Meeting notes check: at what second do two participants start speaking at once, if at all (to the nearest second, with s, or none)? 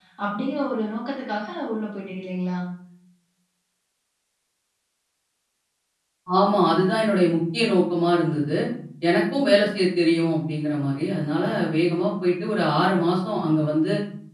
none